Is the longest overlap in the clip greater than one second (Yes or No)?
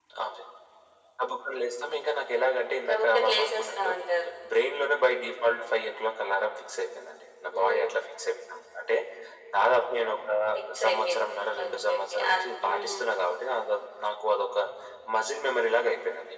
Yes